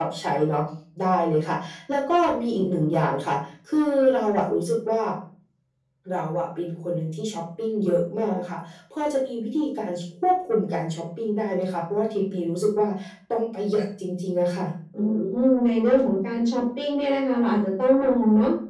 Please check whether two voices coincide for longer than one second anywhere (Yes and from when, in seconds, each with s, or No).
No